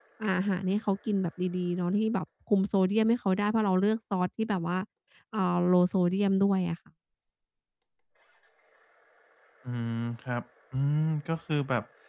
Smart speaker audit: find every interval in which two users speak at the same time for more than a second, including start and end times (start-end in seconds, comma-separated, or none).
none